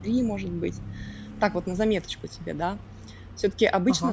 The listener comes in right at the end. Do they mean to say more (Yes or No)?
No